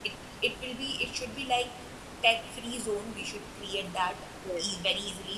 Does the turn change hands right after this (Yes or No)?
No